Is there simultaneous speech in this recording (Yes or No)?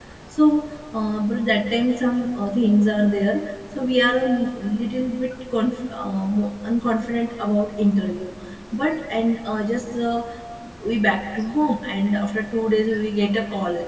No